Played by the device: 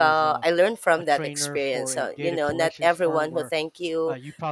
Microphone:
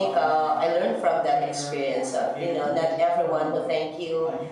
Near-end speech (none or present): none